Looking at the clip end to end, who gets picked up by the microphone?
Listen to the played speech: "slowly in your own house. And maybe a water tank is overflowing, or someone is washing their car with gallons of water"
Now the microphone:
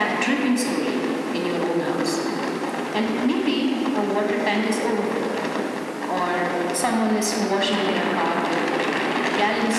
echo only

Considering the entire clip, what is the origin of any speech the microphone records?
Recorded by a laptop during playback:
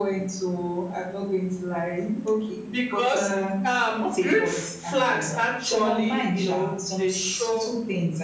both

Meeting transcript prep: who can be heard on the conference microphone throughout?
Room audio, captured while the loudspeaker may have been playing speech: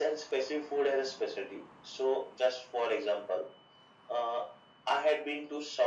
echo only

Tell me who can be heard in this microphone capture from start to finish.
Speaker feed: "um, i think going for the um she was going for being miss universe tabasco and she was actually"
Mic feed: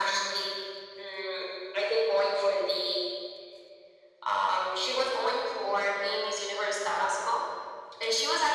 echo only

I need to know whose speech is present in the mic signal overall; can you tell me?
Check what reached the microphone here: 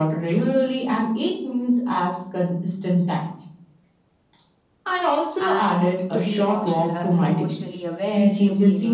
both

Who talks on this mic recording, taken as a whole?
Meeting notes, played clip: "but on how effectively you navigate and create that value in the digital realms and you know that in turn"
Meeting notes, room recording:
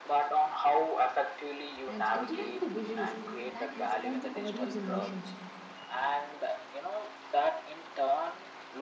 both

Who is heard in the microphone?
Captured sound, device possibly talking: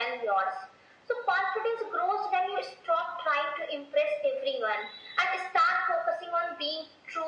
echo only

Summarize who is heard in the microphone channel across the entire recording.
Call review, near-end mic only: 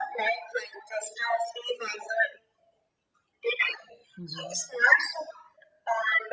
both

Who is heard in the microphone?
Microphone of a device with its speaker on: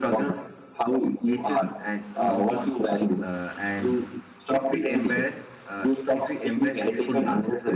both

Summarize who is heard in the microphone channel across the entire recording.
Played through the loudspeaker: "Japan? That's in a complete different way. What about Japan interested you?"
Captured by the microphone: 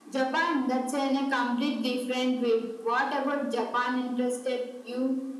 echo only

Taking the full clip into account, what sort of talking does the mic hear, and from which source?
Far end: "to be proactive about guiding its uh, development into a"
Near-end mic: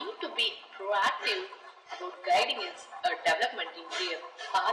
echo only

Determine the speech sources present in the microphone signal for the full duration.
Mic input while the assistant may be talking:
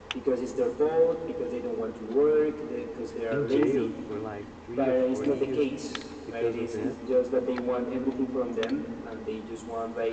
both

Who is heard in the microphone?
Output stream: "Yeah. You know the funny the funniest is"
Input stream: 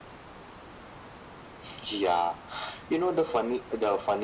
echo only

